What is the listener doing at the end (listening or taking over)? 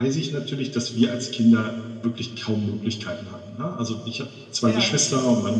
listening